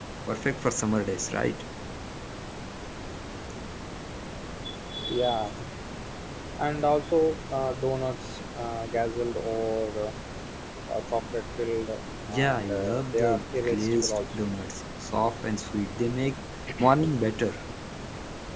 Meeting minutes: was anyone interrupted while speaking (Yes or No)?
Yes